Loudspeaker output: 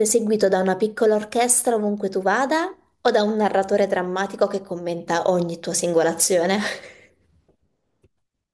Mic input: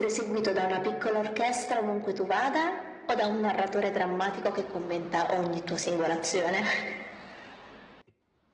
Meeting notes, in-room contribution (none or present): none